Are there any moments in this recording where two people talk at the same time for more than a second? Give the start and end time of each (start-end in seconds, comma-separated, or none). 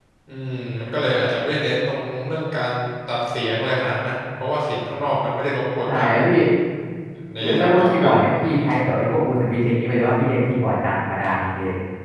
7.4-8.7